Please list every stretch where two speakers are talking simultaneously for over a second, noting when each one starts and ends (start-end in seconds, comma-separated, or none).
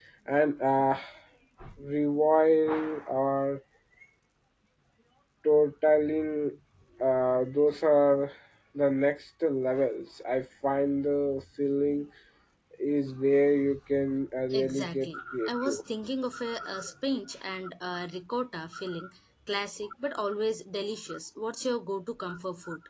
14.5-15.8